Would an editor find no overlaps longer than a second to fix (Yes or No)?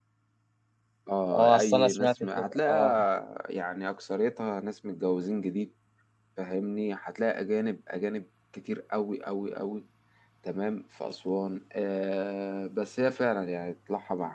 No